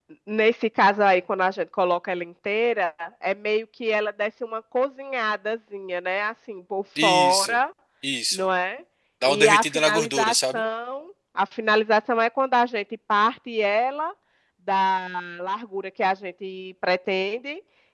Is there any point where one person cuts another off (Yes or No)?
Yes